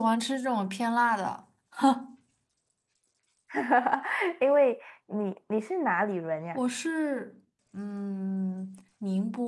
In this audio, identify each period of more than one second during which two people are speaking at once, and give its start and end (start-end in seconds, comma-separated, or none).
none